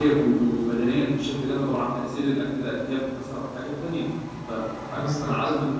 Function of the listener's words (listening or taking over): listening